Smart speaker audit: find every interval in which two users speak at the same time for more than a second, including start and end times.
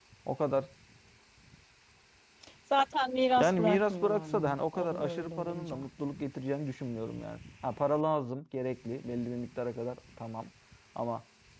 3.4-5.9

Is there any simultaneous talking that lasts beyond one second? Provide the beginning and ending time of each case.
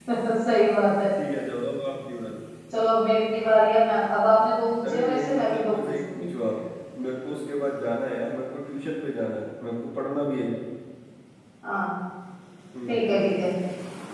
4.9-6.3

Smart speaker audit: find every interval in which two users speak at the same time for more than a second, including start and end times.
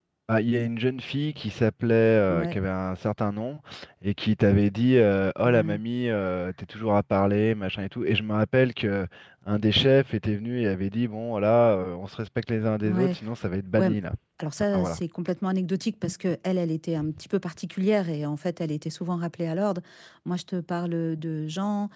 none

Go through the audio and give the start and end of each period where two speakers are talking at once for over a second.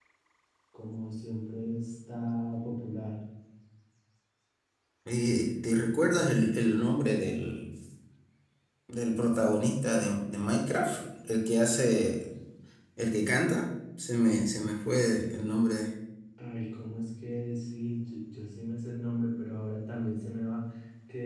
none

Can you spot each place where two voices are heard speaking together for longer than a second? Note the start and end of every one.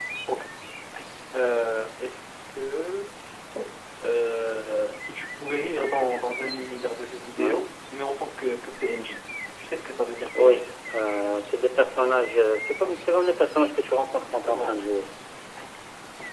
none

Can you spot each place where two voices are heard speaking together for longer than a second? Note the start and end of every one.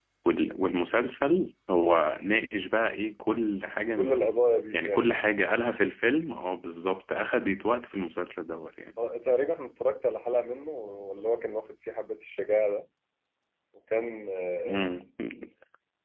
none

